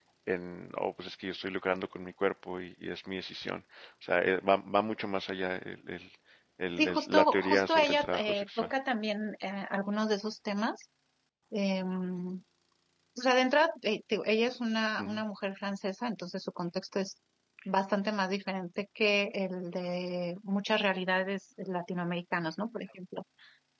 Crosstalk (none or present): present